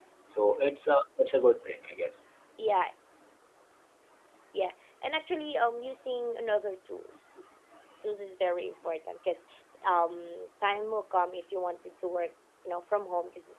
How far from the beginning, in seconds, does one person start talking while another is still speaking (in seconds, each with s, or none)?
none